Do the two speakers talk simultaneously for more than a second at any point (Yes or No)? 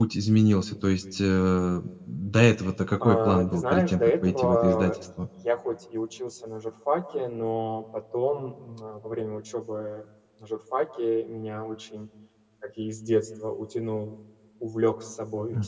Yes